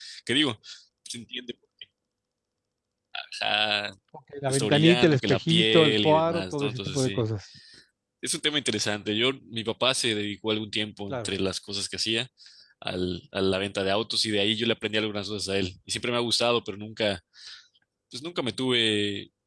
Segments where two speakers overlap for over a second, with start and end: 4.5-7.2

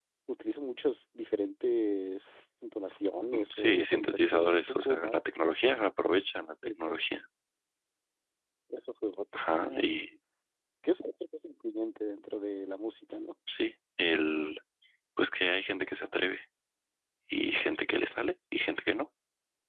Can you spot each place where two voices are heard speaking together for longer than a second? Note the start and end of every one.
3.5-5.2

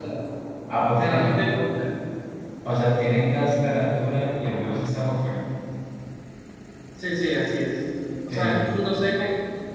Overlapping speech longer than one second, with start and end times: none

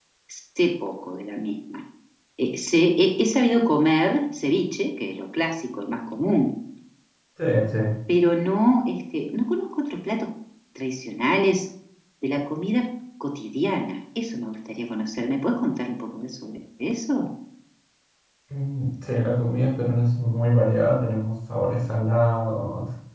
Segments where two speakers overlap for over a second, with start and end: none

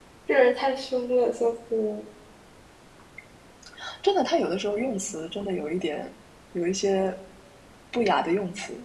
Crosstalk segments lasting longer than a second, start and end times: none

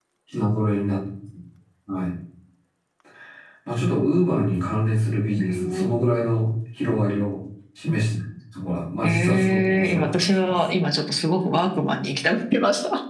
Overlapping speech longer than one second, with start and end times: 9.0-10.6

